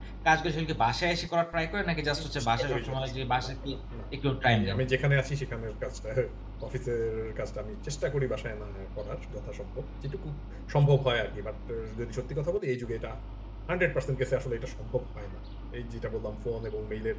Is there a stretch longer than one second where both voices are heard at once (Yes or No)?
Yes